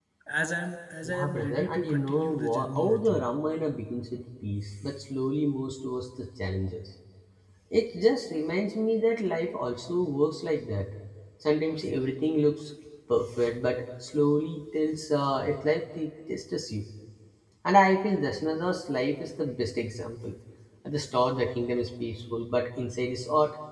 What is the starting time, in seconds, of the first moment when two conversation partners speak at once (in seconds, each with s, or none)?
1.0 s